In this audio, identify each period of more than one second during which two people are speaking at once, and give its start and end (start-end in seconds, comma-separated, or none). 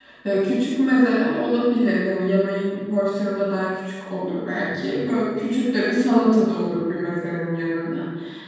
none